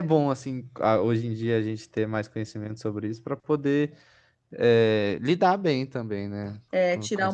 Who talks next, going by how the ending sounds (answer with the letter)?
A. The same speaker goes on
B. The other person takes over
B